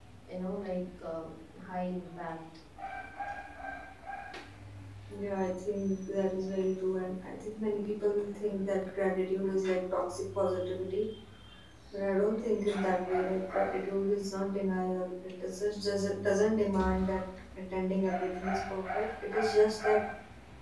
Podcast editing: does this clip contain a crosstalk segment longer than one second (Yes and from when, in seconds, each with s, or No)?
No